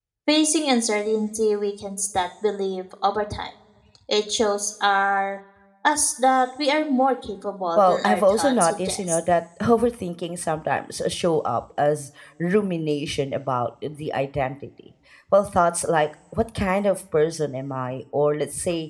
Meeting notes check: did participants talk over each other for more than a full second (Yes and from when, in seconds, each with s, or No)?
Yes, from 7.8 s